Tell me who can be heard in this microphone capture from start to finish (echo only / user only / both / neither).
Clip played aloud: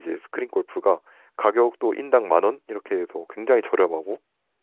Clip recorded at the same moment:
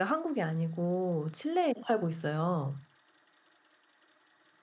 user only